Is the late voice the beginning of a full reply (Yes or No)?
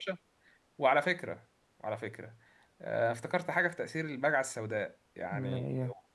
No